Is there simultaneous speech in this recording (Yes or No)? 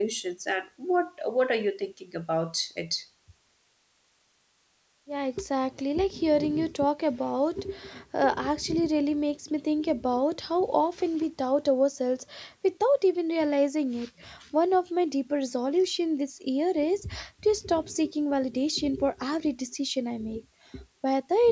No